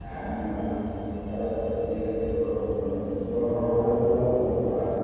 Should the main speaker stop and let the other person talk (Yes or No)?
No